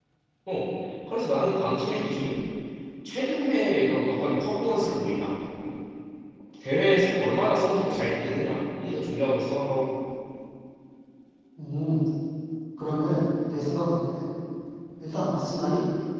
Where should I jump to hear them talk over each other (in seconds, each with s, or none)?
none